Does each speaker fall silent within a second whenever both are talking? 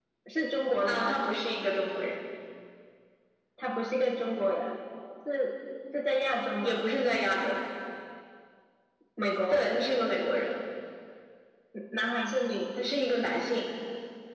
Yes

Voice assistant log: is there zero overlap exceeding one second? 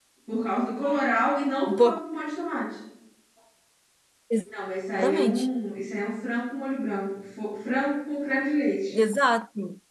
Yes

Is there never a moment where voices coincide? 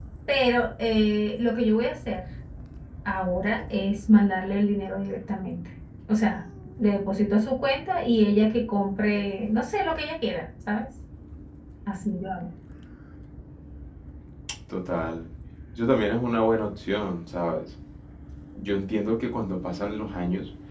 Yes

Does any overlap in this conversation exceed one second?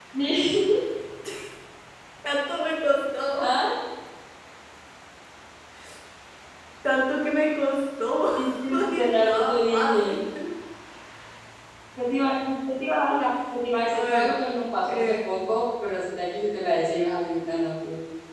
Yes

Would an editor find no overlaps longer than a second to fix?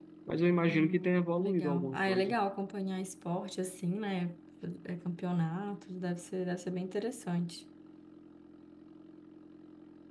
No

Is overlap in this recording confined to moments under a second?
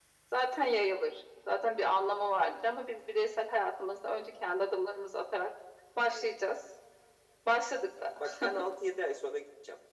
Yes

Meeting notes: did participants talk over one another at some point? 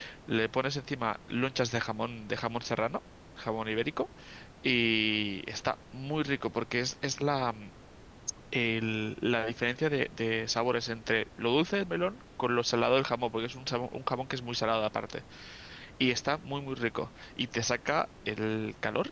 No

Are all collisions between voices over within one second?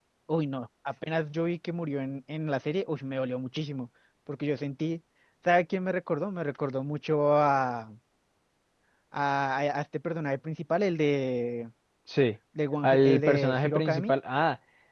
No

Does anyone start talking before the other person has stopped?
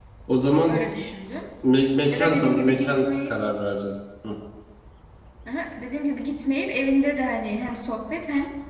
Yes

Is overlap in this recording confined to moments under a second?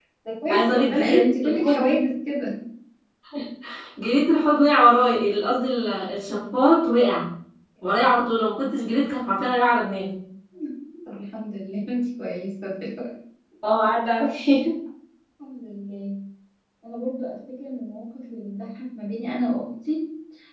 No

